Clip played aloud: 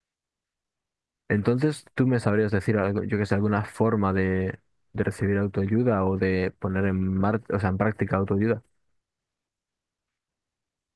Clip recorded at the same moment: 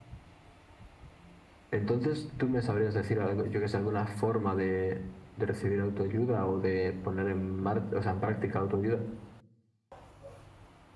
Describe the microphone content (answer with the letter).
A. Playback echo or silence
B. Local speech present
A